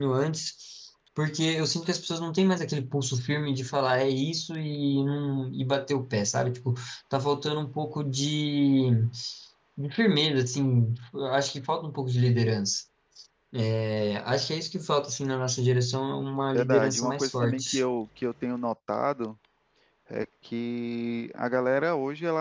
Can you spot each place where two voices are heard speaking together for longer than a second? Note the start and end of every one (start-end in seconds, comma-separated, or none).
16.5-17.8